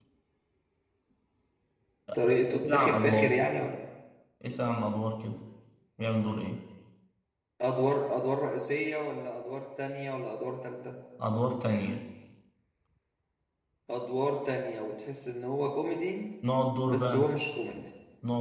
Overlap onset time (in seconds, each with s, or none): 2.1 s